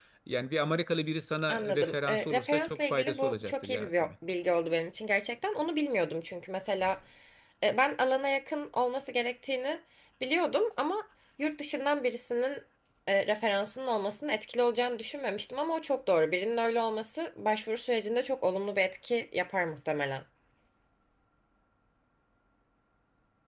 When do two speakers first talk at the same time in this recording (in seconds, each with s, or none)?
1.5 s